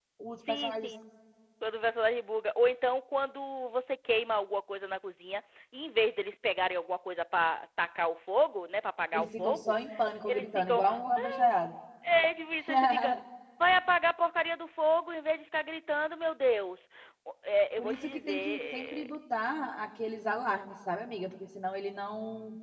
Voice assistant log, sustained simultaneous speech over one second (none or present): present